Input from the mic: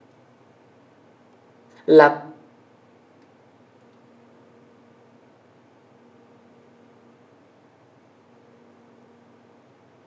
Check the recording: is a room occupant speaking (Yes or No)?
Yes